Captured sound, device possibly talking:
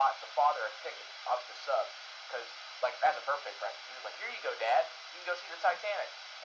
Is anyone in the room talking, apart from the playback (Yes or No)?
No